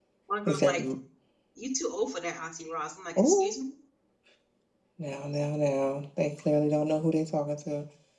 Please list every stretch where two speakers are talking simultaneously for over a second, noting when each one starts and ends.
none

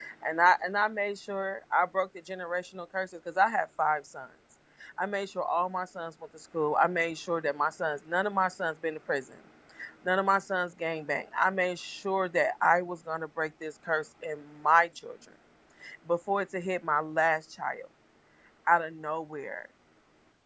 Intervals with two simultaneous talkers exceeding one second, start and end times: none

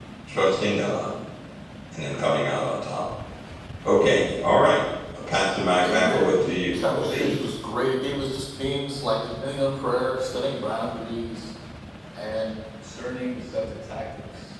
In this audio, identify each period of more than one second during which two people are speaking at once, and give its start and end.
5.8-7.4

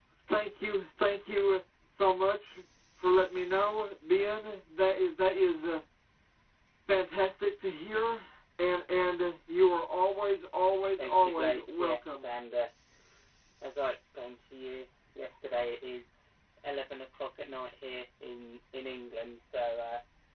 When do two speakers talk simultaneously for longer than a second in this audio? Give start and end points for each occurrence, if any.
11.0-12.3

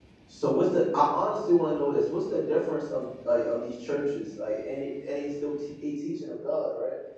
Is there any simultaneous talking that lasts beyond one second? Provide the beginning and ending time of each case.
none

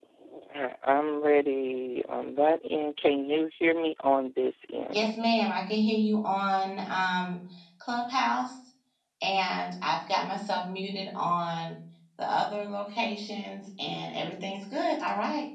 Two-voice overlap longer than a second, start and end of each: none

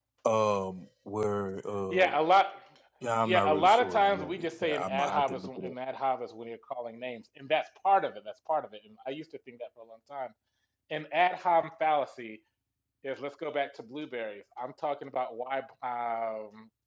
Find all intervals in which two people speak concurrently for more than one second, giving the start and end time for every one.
3.3-5.7

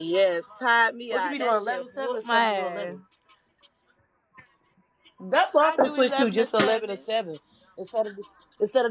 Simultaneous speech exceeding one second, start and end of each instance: 1.1-3.0, 5.6-6.8

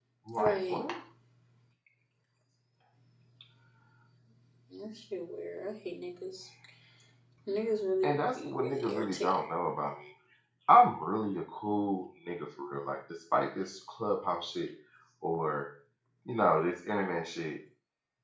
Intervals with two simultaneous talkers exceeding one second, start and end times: 8.0-9.4

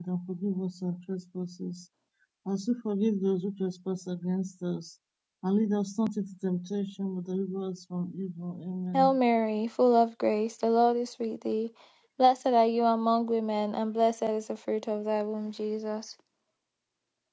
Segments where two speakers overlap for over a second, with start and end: none

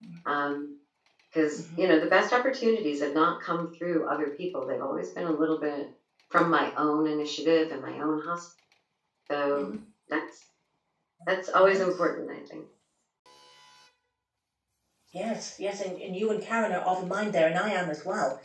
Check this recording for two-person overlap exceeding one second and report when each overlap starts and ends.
none

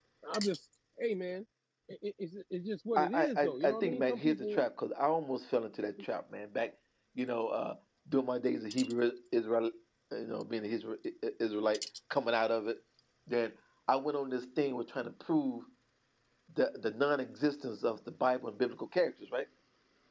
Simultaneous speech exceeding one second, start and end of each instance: 3.0-4.6

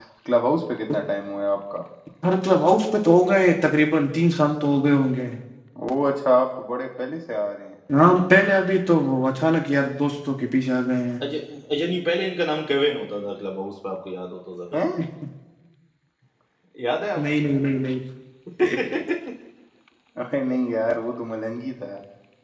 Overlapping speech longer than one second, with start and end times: none

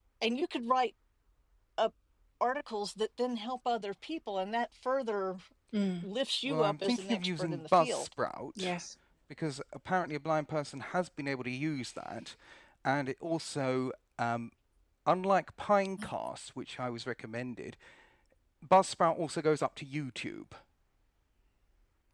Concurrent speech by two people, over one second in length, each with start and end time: 6.5-8.0

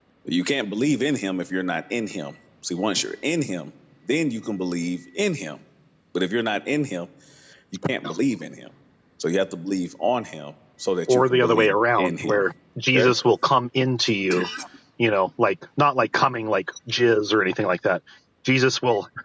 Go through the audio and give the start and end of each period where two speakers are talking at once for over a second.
11.1-12.4

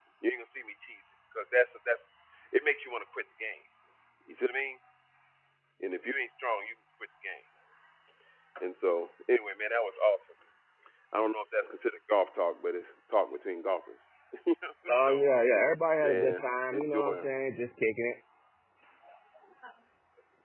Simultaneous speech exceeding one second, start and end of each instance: 16.0-17.3

